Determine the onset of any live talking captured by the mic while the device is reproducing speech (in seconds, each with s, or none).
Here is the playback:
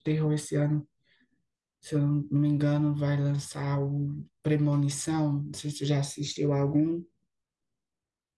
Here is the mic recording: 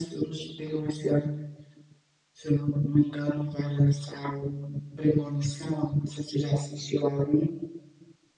none